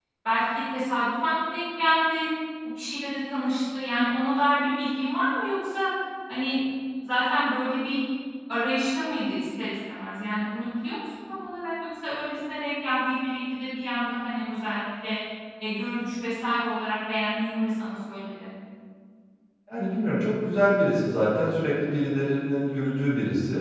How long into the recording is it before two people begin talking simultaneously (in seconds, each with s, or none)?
none